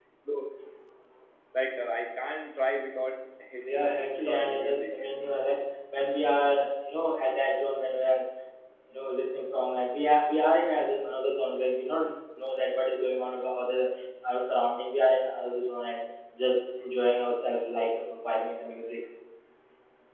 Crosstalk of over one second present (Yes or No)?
Yes